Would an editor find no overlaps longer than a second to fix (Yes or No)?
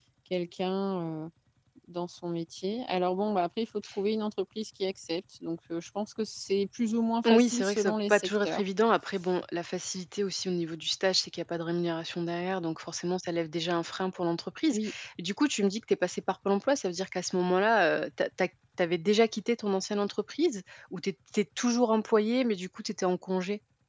No